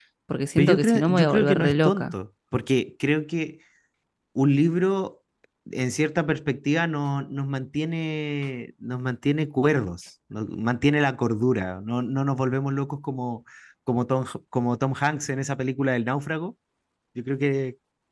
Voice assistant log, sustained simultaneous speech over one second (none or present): present